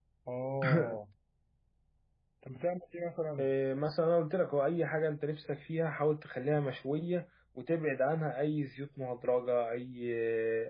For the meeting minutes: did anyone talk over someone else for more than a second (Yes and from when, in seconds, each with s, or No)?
No